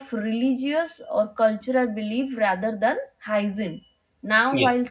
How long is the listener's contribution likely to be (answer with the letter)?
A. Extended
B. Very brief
B